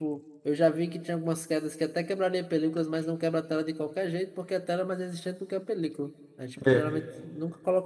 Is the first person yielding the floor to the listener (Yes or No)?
No